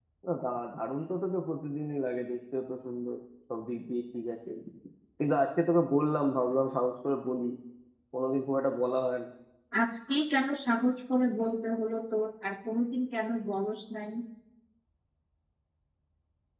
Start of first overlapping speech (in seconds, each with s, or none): none